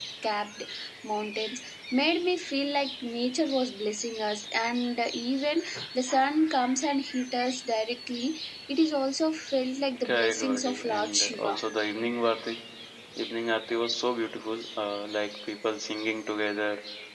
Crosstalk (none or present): present